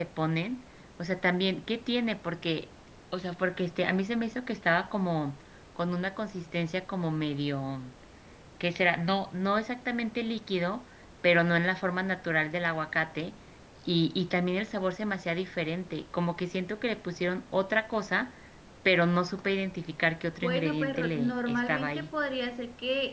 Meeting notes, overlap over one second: present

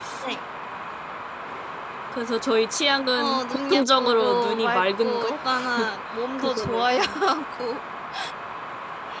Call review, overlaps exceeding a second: present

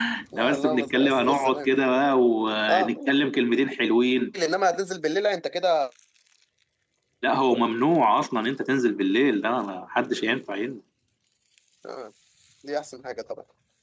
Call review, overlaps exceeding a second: present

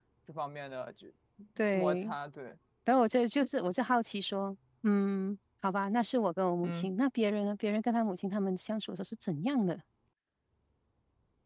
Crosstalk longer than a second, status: none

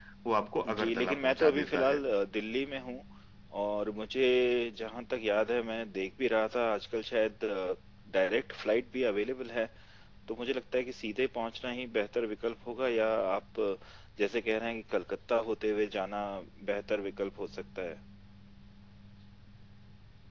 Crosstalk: present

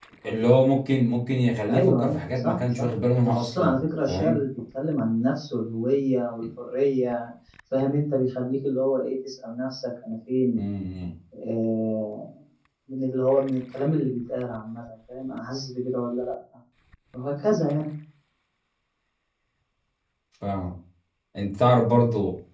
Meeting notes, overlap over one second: present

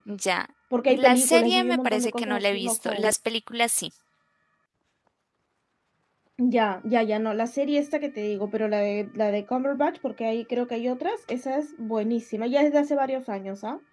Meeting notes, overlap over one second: present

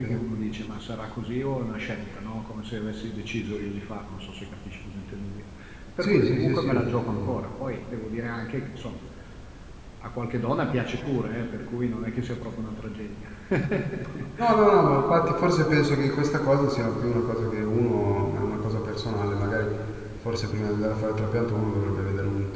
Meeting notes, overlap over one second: present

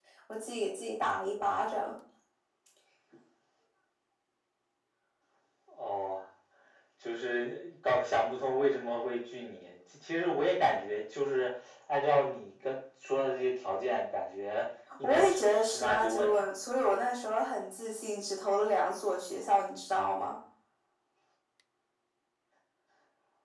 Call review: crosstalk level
present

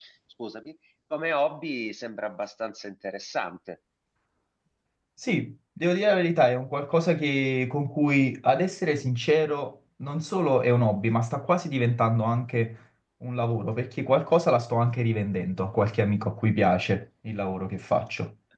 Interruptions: none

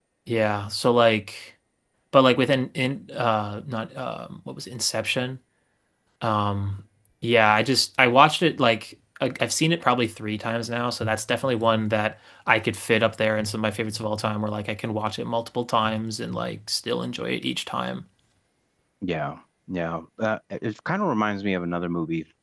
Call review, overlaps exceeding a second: none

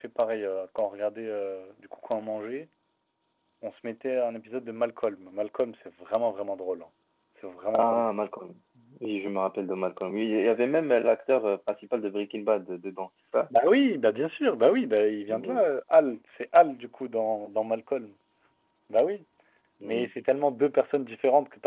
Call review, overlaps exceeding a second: none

